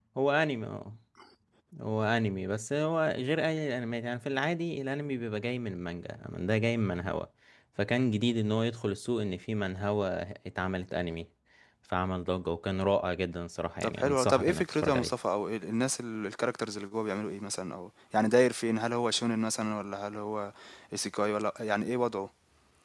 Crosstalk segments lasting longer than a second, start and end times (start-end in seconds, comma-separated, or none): 13.8-15.1